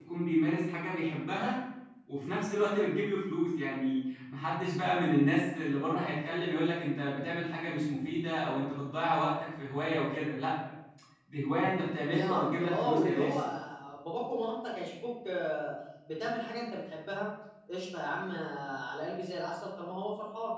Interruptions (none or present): present